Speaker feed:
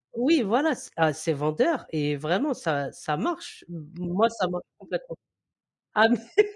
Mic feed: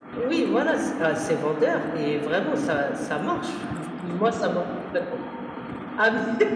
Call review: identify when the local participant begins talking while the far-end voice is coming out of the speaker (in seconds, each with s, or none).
none